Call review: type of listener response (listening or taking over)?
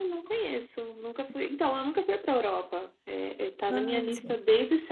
listening